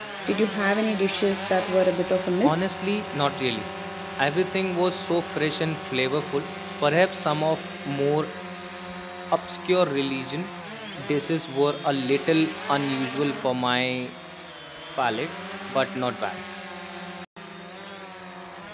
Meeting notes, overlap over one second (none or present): none